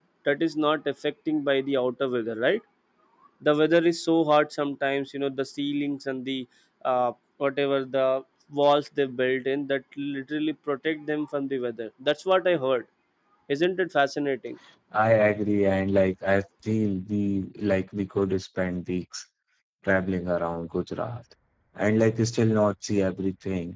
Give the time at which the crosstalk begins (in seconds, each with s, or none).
none